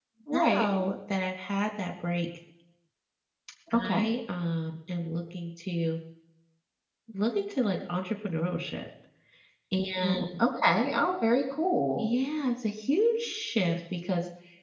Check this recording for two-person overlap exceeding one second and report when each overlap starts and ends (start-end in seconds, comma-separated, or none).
none